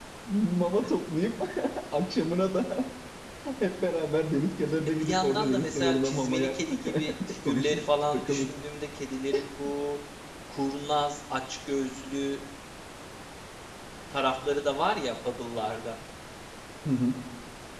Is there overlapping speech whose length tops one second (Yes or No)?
Yes